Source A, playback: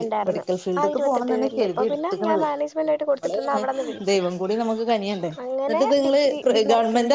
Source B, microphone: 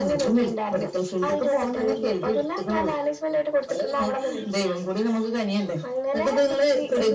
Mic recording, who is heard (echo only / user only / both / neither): echo only